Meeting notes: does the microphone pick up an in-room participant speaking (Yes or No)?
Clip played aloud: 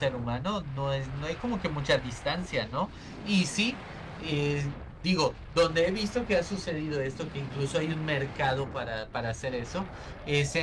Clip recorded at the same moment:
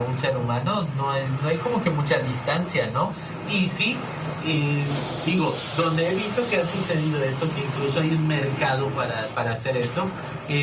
No